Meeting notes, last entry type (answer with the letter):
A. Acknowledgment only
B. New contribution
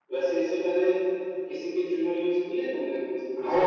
B